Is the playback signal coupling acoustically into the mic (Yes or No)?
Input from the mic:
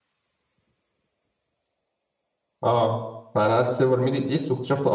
No